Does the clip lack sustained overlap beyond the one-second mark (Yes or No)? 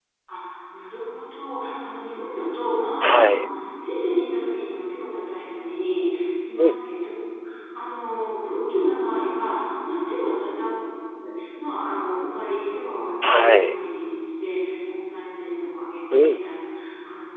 Yes